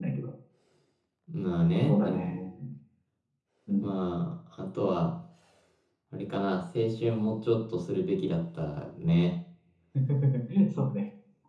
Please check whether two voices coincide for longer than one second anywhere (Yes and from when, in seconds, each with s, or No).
No